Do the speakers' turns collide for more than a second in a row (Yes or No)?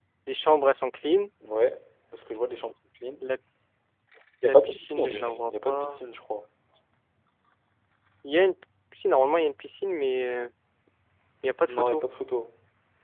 Yes